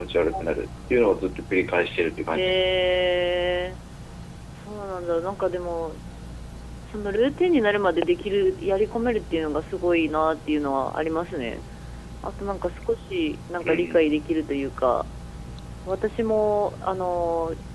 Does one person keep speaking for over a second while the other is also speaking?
No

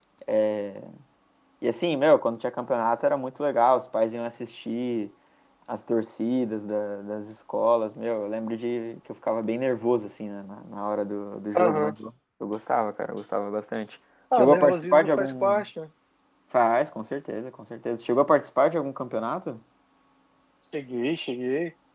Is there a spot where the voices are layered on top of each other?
Yes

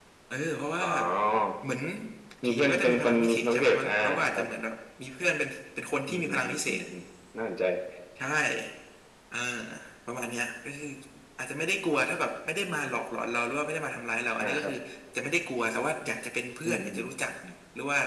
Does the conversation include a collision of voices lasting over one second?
Yes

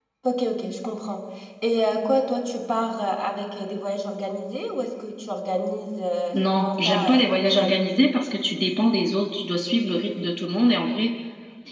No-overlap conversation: No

